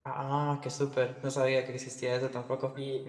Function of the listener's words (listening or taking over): taking over